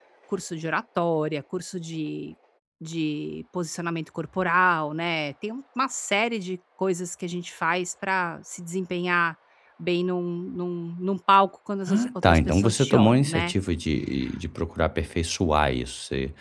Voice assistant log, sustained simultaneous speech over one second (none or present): present